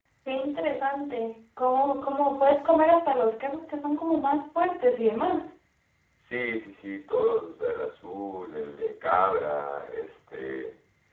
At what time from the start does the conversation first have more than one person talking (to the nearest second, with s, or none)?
none